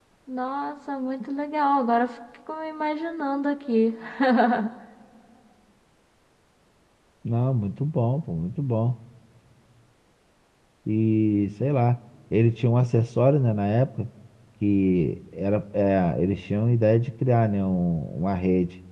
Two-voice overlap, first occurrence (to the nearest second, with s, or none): none